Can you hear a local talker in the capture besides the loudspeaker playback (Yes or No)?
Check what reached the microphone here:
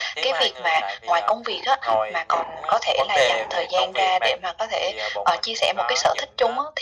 No